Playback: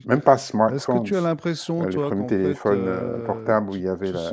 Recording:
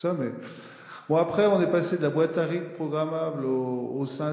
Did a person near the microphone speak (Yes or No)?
Yes